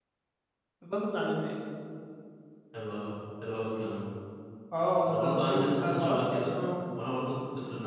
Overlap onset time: 5.1 s

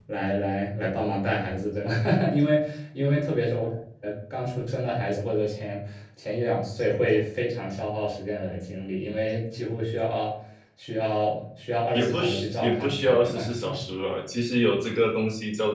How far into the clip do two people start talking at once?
11.9 s

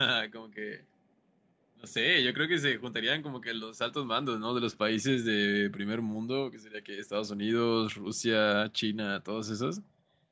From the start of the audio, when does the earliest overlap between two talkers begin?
none

